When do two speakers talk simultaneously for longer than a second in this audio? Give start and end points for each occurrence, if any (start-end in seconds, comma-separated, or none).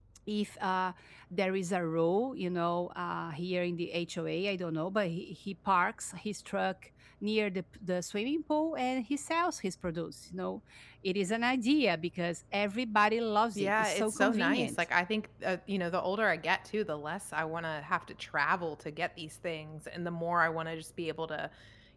13.6-14.8